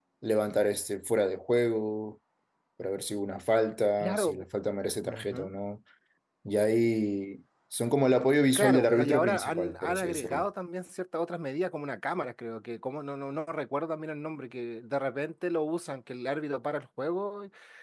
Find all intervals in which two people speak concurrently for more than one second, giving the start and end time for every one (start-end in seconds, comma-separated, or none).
8.6-10.4